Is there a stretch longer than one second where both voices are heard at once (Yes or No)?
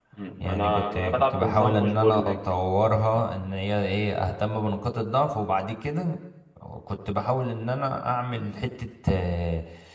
Yes